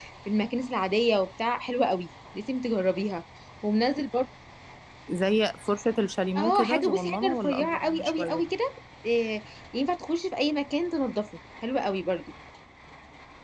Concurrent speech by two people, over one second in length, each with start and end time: 6.4-8.4

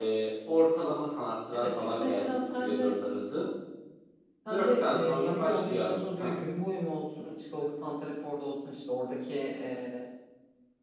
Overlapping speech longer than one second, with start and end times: 1.5-2.9, 4.5-6.3

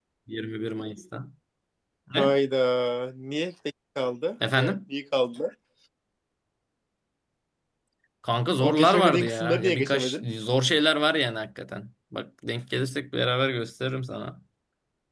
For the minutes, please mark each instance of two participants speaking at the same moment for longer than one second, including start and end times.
8.6-10.2

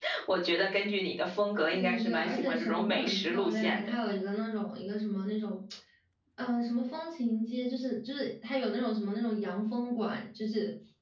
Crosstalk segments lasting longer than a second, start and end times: 1.7-3.9

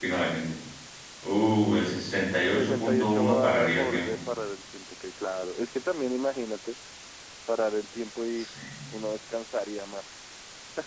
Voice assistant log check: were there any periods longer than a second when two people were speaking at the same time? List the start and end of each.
2.5-4.2

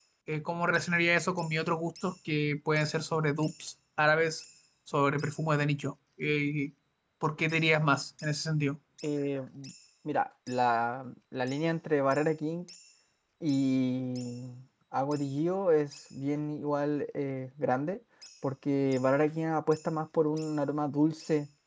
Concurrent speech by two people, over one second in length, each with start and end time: none

